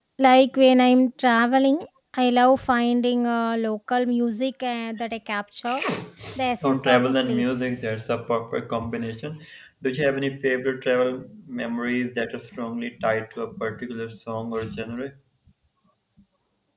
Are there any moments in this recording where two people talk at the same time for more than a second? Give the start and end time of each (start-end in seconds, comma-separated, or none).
6.6-7.8